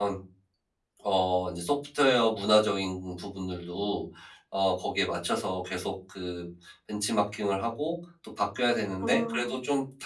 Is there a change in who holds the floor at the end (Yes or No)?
No